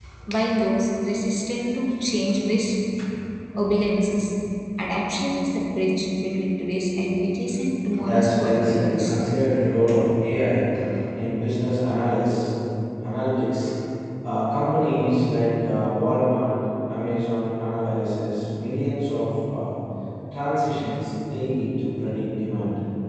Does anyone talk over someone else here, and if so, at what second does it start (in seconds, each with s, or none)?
7.9 s